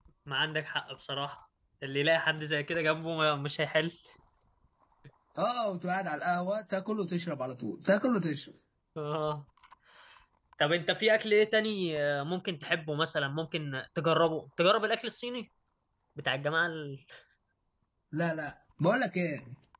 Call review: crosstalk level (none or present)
none